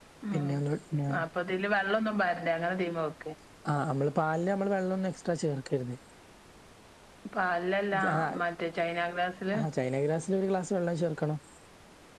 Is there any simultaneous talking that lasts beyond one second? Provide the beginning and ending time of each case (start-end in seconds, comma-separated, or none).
none